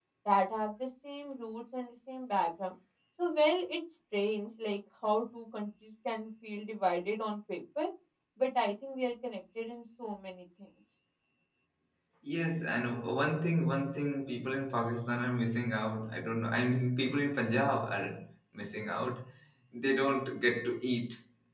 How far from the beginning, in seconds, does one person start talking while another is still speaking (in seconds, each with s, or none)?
none